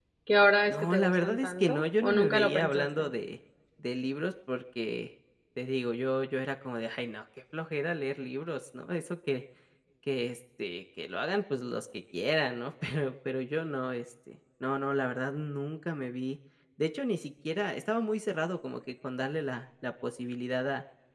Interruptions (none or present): present